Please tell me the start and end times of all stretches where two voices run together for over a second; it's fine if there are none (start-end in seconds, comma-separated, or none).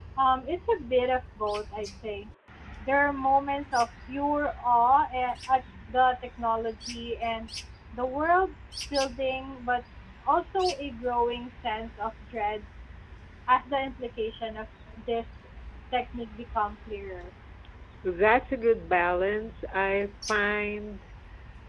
none